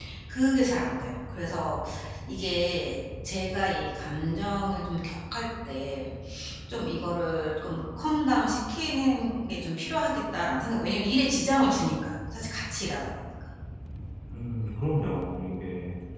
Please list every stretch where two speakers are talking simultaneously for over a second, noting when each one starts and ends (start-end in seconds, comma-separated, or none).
none